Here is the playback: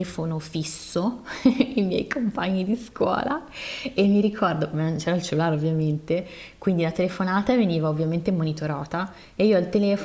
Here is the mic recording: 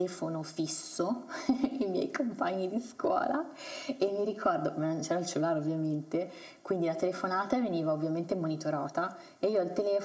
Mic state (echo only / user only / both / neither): echo only